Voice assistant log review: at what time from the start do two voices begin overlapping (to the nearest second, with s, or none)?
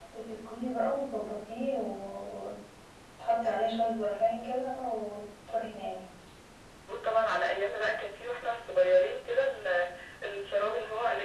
none